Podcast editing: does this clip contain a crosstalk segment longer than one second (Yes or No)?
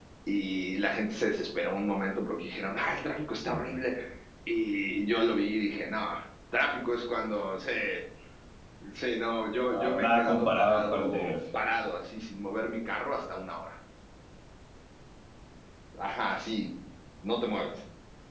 Yes